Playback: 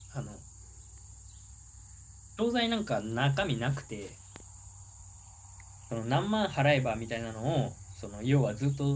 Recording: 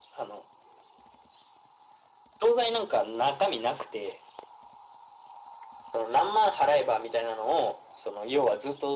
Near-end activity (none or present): none